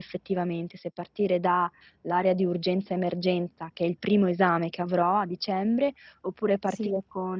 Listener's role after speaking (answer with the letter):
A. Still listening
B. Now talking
A